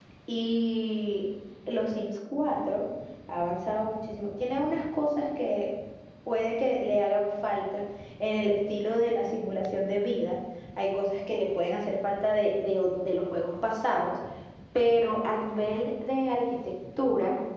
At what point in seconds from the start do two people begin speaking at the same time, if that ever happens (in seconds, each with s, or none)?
none